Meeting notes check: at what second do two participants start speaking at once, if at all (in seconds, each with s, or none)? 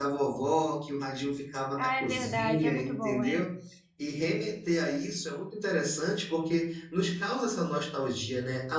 1.8 s